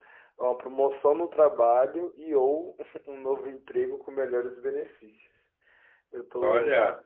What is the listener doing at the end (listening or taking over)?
listening